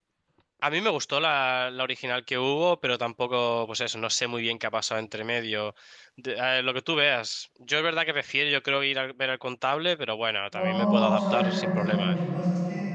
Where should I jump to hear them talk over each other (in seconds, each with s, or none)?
10.5 s